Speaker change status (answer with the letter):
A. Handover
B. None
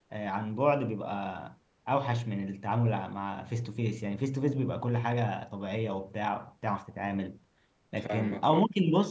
B